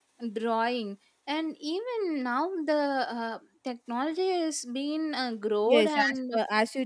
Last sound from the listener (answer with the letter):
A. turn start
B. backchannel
A